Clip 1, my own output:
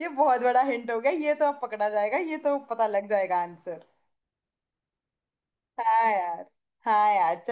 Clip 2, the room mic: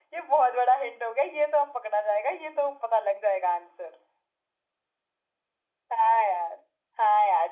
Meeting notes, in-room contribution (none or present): none